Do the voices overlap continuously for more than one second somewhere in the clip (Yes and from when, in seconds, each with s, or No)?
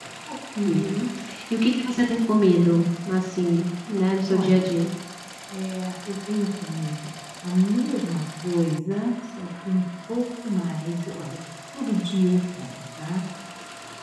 No